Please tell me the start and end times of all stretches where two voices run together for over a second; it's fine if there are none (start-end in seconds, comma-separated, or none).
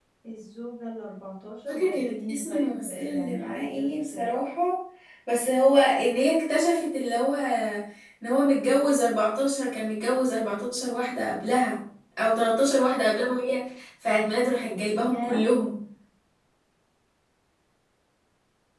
1.7-4.2